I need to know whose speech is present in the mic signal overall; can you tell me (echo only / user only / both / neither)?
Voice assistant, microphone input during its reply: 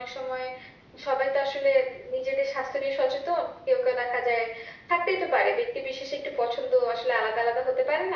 echo only